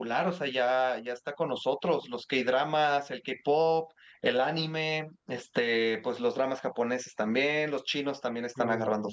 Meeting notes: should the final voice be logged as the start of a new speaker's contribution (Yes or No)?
No